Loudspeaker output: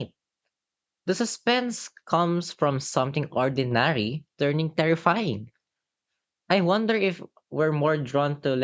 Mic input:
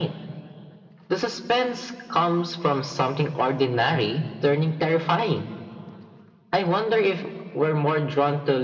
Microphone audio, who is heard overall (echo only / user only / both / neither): echo only